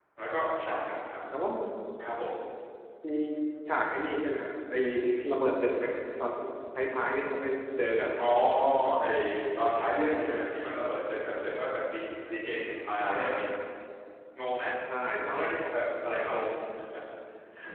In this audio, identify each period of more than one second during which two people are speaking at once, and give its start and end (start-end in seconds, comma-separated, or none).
none